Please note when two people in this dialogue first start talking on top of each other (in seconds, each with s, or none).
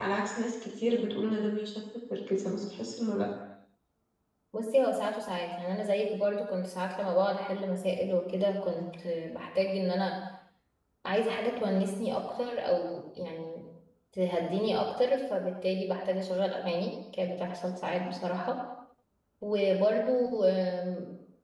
none